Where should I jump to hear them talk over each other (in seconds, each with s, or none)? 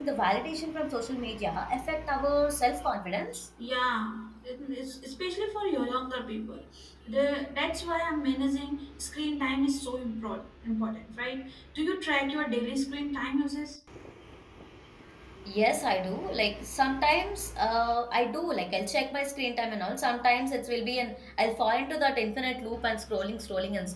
none